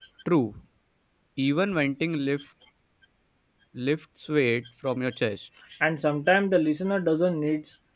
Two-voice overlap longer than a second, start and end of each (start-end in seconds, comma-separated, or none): none